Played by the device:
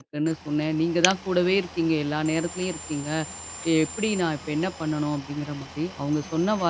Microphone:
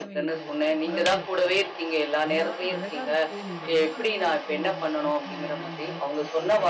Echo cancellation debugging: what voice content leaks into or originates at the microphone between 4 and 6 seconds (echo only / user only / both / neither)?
both